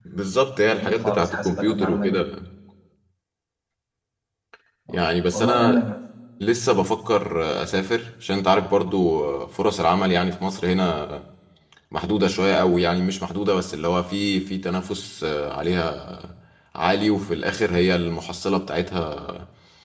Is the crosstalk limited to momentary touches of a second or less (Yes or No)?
No